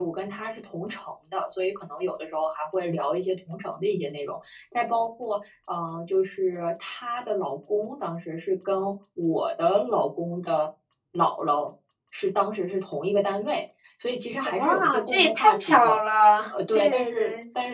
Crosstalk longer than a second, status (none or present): present